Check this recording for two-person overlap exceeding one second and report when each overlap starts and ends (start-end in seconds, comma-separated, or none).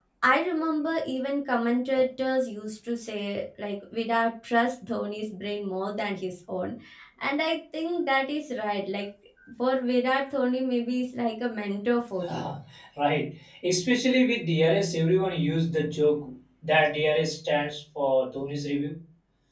none